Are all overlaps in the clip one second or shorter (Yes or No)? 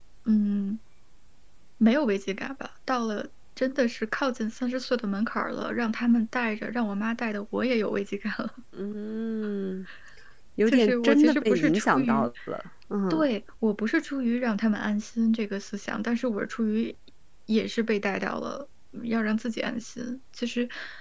No